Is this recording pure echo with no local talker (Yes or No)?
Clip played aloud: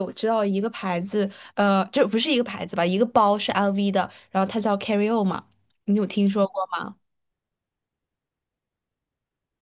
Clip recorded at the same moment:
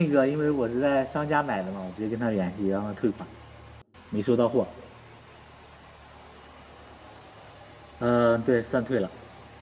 No